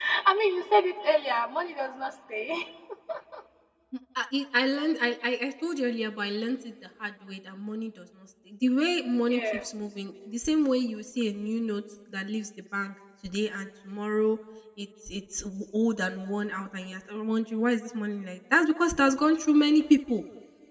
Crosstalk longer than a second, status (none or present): none